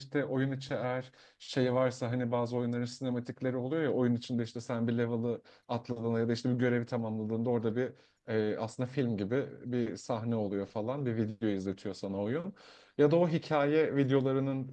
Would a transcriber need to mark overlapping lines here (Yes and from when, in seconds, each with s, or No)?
No